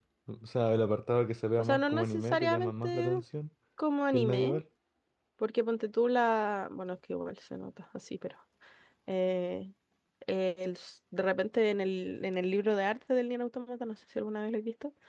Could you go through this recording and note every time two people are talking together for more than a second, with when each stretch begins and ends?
1.6-3.2

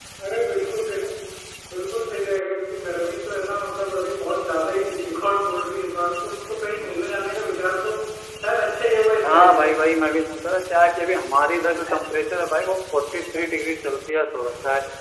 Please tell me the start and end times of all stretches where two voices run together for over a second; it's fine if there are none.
none

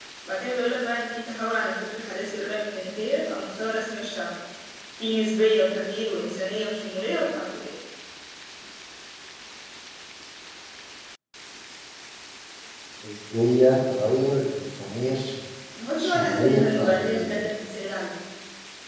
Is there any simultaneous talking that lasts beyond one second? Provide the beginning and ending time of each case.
16.0-17.4

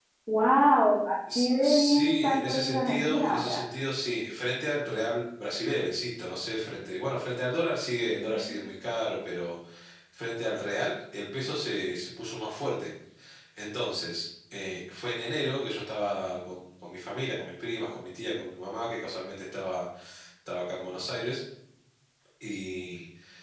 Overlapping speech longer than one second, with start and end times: 1.4-3.5

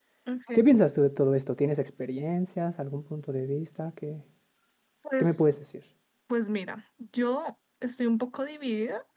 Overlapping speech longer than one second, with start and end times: none

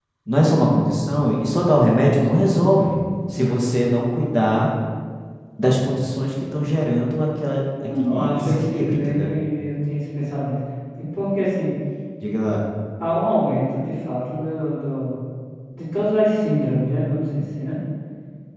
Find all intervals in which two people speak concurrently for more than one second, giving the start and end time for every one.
7.9-9.3

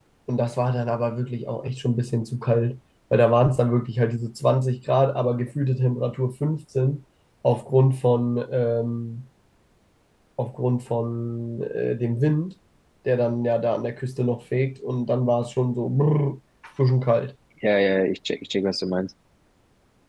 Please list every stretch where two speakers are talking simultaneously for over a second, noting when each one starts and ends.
none

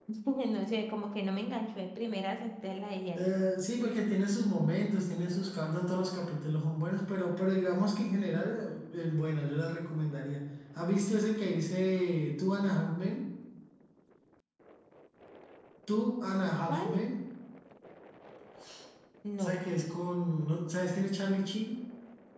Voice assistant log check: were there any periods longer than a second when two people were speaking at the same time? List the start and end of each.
none

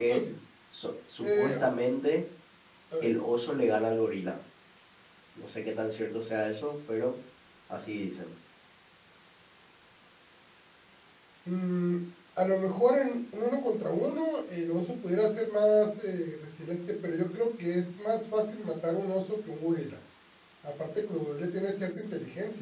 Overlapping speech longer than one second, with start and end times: none

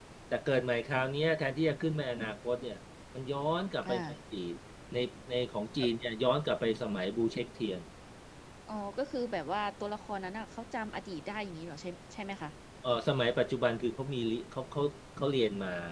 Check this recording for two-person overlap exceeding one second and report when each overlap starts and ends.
none

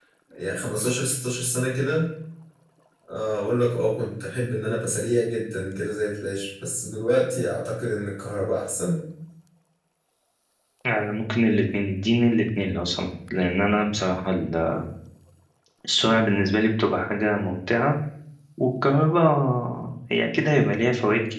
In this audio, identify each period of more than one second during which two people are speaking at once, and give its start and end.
none

